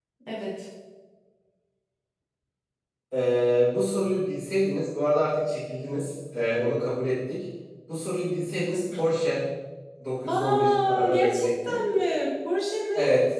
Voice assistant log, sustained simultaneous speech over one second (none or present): present